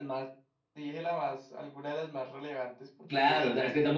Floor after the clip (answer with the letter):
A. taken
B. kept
A